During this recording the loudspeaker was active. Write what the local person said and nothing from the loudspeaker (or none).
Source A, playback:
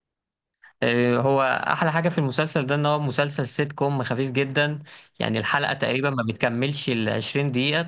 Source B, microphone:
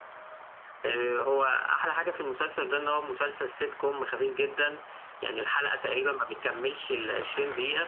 none